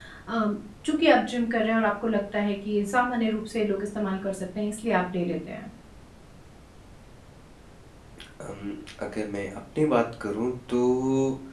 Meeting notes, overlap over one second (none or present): none